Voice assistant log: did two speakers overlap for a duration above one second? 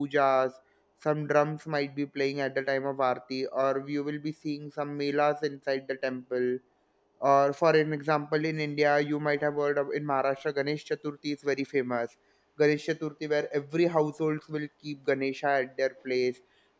No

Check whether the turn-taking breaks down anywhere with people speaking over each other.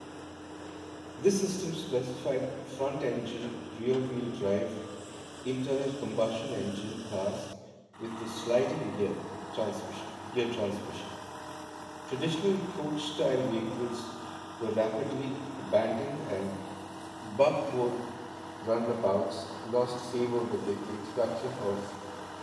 No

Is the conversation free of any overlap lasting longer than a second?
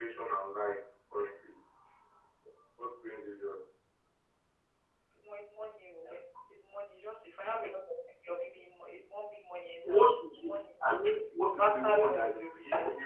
No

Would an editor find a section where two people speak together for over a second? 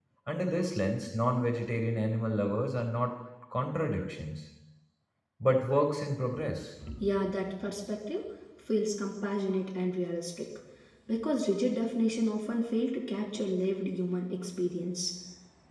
No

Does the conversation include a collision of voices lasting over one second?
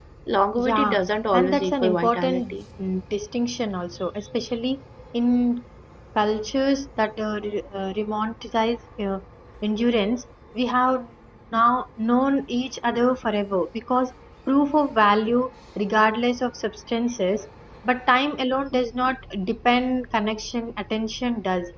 Yes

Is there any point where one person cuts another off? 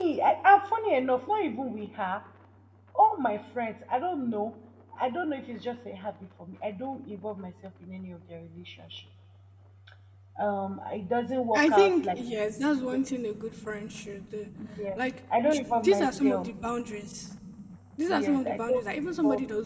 Yes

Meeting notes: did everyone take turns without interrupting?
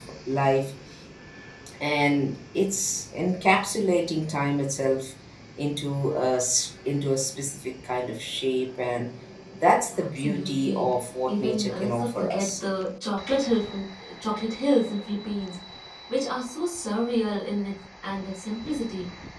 No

